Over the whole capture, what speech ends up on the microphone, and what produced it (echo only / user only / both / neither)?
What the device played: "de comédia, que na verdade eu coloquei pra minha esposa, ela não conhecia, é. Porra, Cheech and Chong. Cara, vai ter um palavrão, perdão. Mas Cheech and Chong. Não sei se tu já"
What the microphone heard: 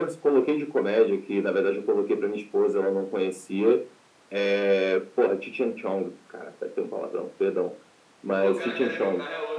both